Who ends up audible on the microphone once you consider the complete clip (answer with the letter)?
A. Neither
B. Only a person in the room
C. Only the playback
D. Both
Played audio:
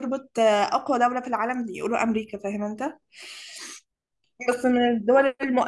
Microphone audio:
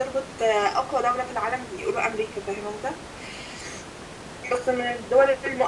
C